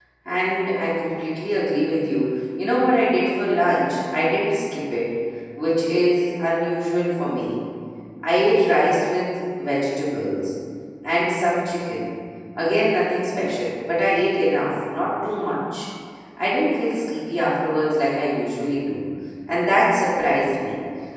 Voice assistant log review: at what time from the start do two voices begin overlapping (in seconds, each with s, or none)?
none